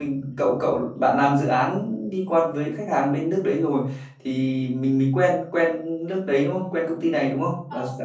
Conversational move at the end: taking over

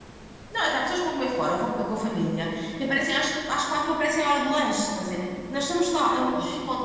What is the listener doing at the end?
listening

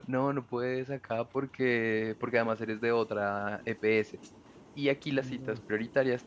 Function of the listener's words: listening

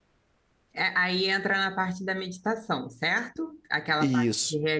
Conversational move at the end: listening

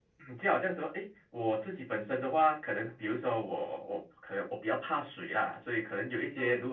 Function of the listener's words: listening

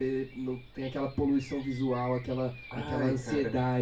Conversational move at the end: listening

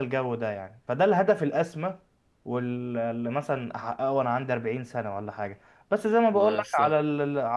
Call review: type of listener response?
listening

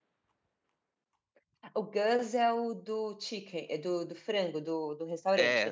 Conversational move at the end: taking over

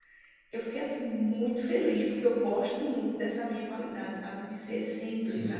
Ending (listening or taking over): listening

